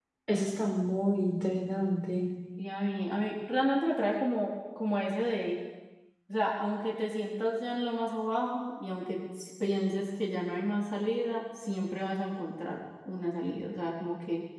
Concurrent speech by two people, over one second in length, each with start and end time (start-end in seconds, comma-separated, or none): none